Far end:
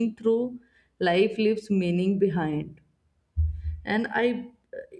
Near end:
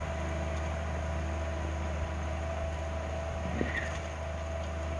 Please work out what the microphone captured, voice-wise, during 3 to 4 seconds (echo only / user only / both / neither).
neither